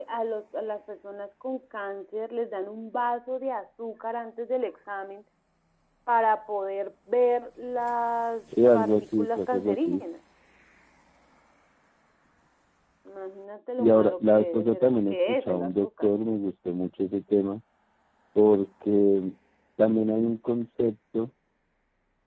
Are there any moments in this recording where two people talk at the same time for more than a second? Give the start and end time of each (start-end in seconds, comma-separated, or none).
8.7-10.0, 13.8-16.1